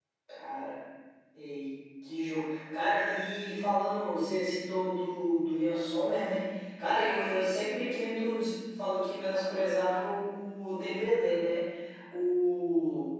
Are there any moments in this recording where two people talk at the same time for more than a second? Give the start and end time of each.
none

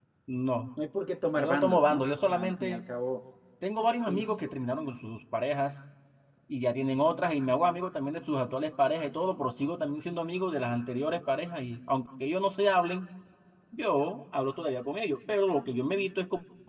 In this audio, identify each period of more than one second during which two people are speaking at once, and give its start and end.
1.4-2.8

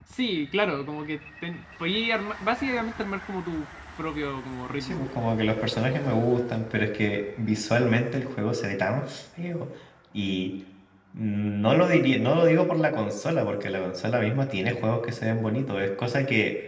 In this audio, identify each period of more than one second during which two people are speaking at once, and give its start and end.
none

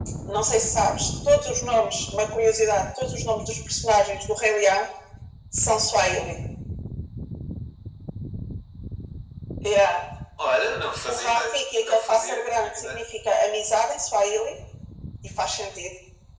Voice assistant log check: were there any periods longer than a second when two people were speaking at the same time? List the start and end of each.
11.1-13.0

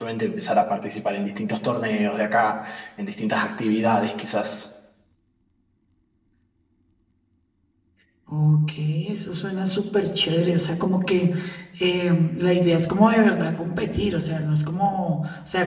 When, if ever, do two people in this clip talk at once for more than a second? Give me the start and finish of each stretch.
none

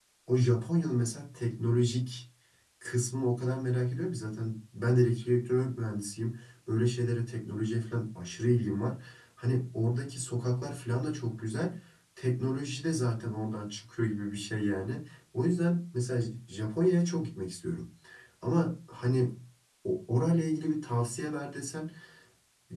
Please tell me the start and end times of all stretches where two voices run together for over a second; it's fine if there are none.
none

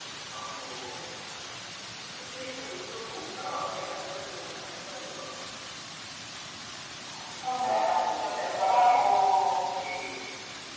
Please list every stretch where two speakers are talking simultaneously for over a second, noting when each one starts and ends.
7.4-9.2

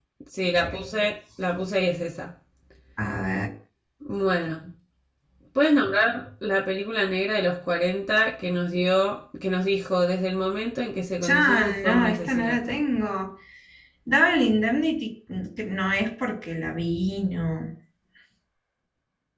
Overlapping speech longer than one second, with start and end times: 11.2-12.8

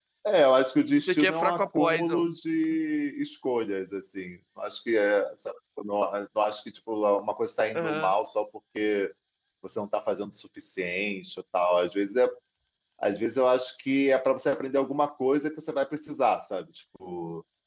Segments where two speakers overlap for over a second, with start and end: 1.0-2.3

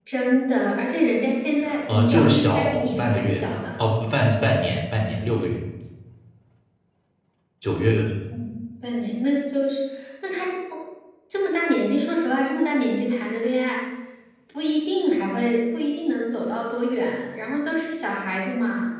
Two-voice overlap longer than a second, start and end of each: 1.9-3.4

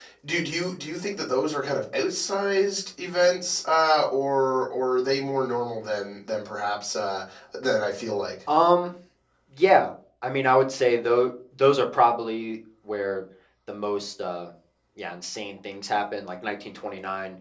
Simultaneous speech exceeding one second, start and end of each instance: none

